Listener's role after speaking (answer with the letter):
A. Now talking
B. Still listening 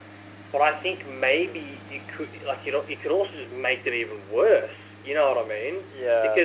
B